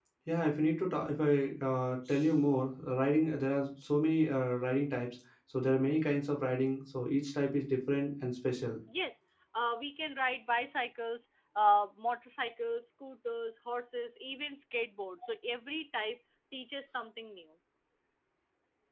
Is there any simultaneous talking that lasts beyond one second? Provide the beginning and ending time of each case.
none

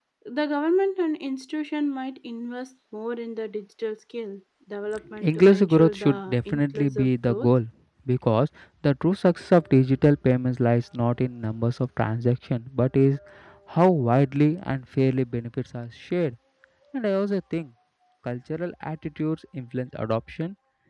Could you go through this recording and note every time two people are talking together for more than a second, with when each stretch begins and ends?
5.2-7.5

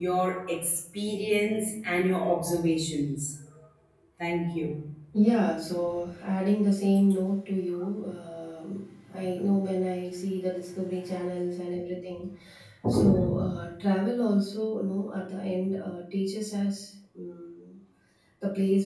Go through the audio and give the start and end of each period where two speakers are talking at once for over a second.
none

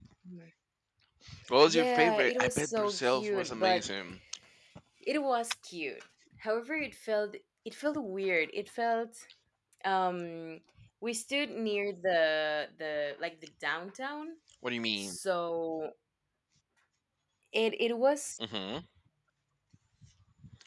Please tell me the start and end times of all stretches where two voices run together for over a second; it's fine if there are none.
1.7-3.8

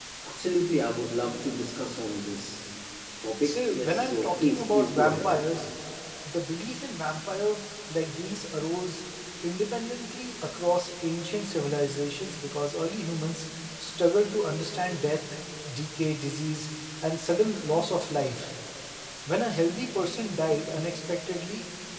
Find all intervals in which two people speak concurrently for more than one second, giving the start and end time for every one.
3.4-5.3

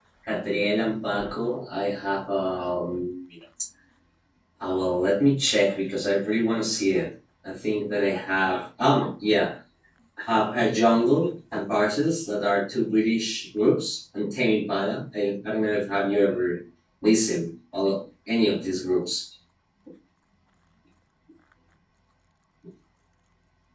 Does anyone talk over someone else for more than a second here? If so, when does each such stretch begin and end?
none

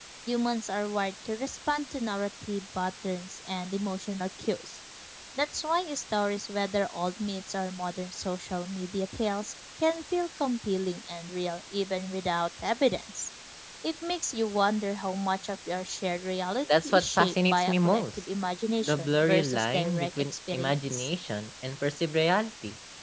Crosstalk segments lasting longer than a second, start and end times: 16.8-18.2, 18.8-21.1

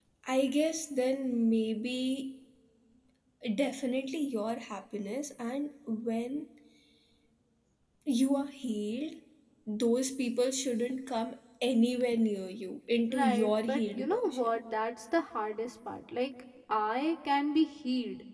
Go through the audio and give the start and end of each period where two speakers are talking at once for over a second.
13.1-14.6

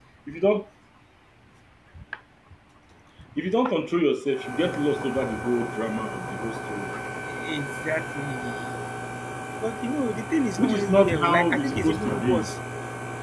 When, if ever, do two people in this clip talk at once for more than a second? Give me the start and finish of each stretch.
10.6-12.5

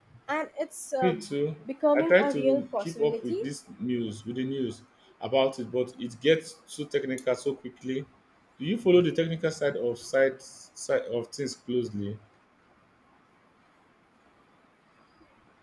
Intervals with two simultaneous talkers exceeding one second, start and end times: 1.9-3.4

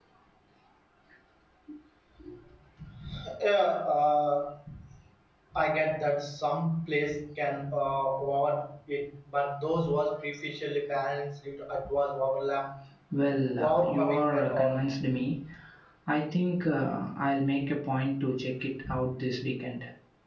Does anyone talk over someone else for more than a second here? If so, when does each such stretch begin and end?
13.6-14.9

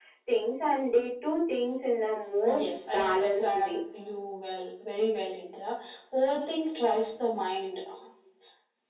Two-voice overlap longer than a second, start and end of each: 2.4-3.8

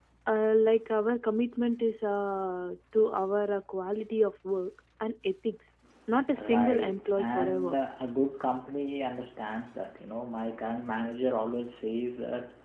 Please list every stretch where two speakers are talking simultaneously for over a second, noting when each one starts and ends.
6.4-7.8

